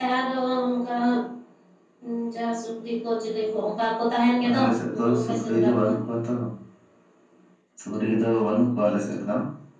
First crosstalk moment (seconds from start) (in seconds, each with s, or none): 4.4 s